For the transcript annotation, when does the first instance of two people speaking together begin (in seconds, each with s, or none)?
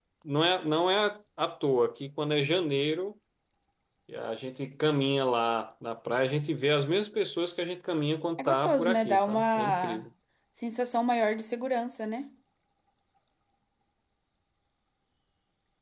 8.4 s